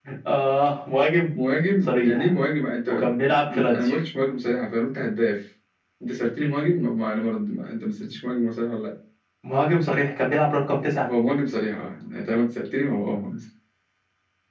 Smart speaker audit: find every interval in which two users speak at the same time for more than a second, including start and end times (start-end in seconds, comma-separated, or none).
none